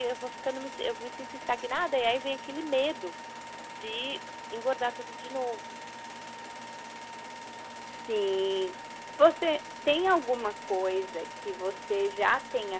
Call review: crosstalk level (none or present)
none